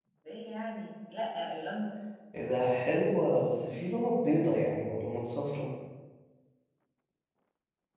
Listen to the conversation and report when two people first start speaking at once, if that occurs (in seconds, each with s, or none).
none